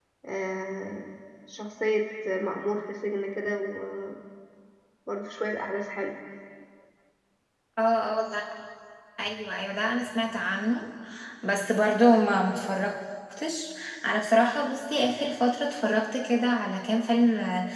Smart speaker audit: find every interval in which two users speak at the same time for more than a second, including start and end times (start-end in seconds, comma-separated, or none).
none